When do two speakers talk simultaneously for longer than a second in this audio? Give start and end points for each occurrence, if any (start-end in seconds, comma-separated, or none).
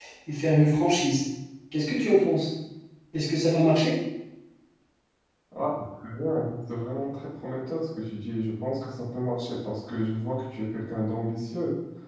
none